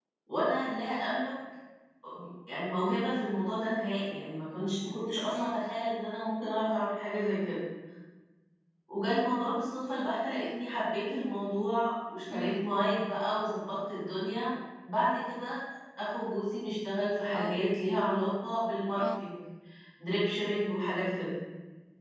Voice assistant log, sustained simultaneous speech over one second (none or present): none